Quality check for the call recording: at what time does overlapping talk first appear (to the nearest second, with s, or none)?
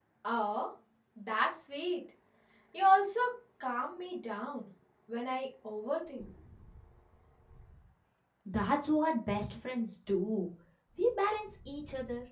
none